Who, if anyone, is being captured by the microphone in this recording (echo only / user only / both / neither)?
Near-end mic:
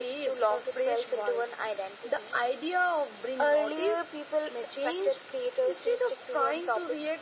echo only